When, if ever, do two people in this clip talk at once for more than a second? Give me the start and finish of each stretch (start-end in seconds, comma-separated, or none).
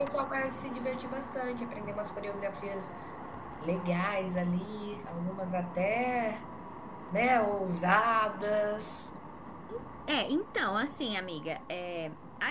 none